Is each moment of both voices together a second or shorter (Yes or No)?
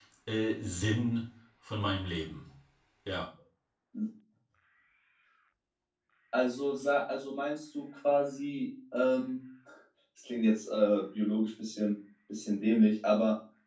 Yes